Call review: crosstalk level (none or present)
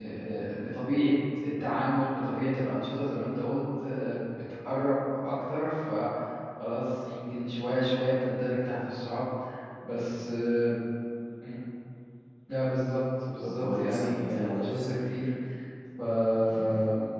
present